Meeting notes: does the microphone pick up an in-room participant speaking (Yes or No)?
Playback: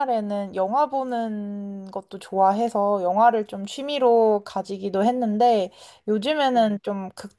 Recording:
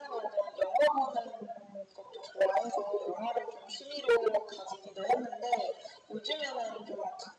No